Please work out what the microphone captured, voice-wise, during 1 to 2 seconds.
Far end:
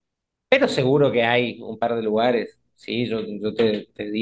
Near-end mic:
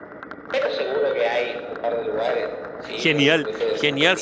echo only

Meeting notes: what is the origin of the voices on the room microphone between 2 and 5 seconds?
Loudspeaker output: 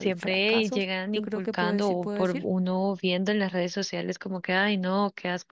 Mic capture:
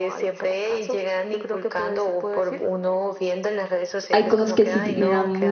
both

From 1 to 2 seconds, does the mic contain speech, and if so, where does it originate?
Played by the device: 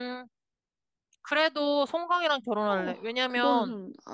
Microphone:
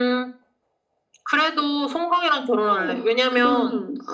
echo only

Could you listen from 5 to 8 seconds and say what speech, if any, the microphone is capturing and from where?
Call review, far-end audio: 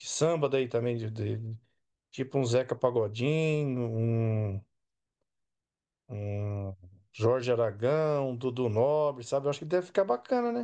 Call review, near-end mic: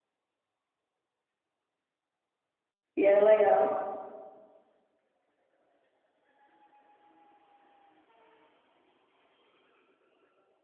neither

